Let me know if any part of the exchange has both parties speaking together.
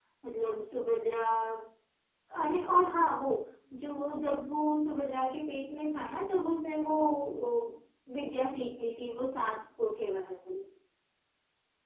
No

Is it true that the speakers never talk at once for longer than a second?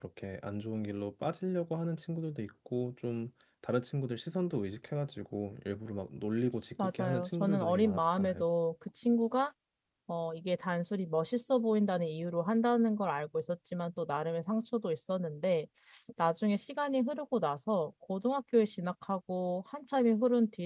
No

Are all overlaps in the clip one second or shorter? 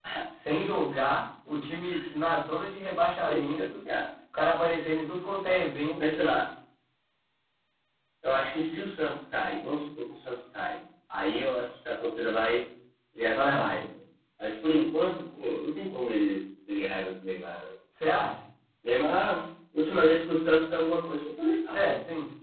Yes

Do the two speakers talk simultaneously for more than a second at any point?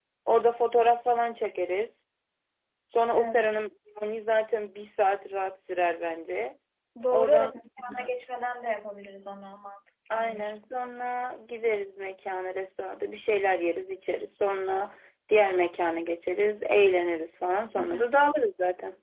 No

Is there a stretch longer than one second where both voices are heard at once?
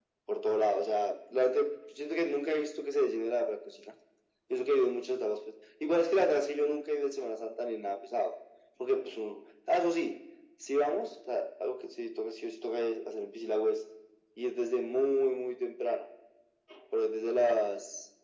No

